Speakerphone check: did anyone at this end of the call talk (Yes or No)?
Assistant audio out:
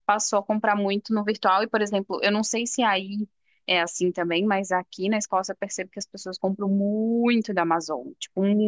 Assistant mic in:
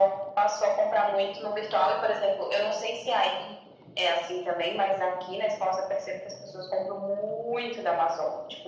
No